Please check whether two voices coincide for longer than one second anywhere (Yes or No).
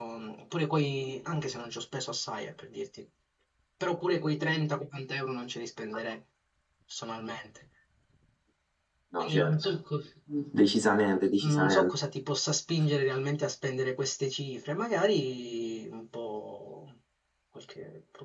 No